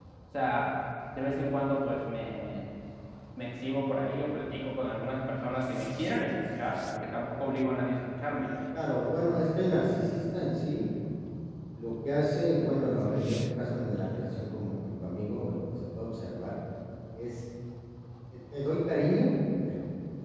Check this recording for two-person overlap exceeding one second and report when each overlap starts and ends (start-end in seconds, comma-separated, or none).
none